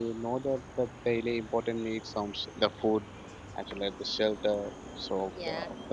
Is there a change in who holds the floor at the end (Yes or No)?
Yes